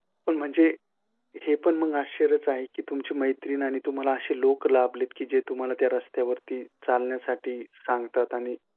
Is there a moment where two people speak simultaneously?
No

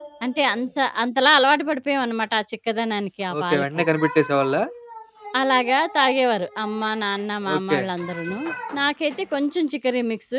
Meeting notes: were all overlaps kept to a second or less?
Yes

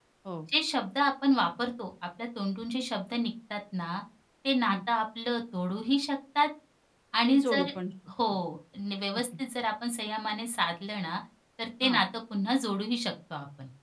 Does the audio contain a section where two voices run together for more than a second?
No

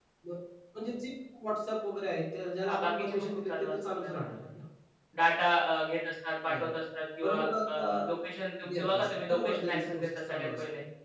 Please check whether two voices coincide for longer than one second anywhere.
Yes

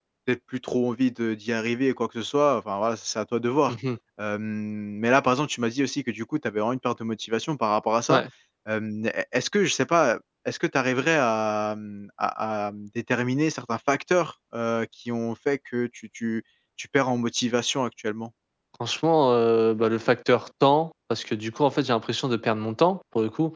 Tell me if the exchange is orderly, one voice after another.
Yes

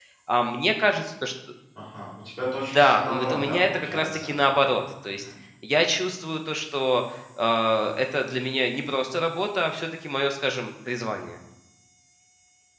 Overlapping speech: Yes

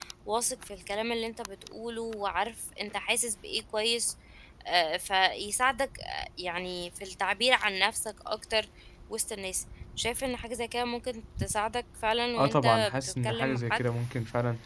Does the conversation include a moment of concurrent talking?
Yes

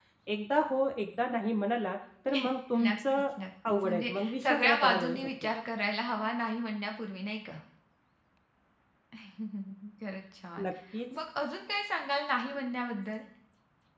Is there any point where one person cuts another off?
Yes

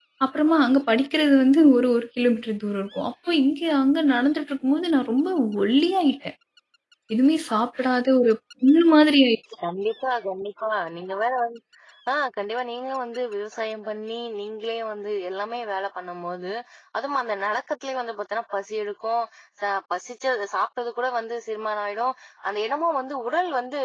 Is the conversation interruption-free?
Yes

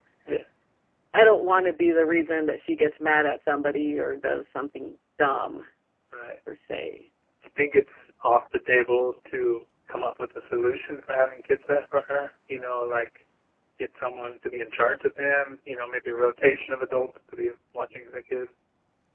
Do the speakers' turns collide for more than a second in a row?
No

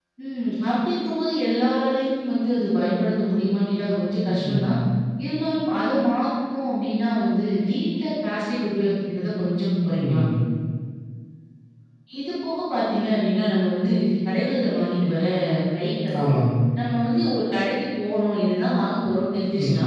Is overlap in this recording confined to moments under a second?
Yes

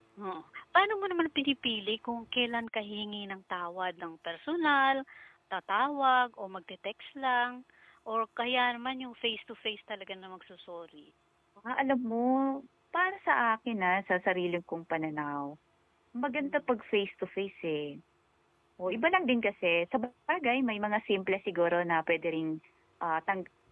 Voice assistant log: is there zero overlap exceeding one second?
Yes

